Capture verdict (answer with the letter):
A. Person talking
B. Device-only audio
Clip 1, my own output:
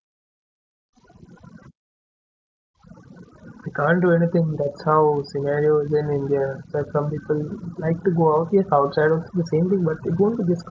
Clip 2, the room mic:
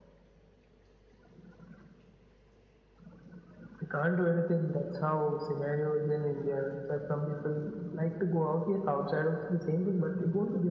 B